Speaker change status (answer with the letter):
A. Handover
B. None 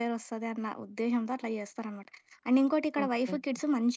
B